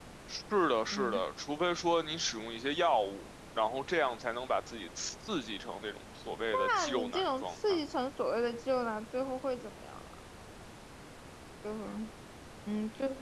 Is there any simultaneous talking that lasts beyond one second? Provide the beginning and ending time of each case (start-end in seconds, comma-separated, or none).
6.5-7.8